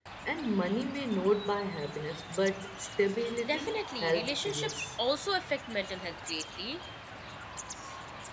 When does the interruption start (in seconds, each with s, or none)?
3.5 s